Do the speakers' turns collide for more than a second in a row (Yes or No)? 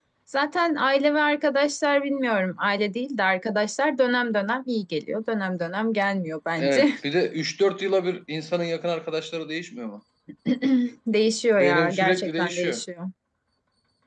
Yes